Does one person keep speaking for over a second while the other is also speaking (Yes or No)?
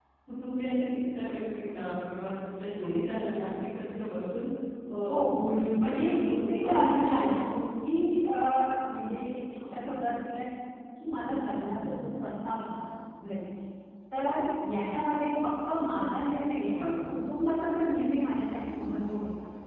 Yes